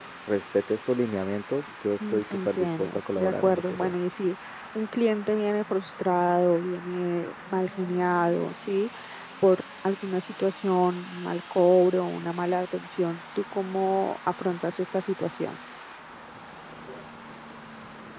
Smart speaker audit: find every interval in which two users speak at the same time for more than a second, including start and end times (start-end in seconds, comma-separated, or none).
2.1-3.9